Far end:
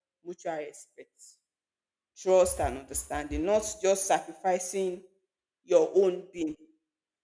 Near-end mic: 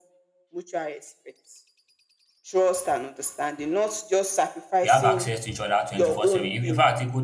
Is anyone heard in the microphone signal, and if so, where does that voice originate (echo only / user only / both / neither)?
both